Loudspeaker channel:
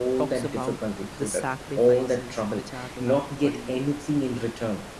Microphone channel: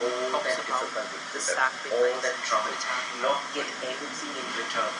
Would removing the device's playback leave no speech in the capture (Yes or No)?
Yes